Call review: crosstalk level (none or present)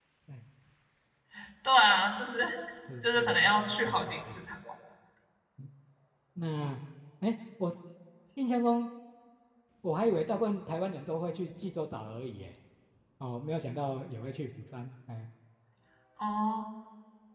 present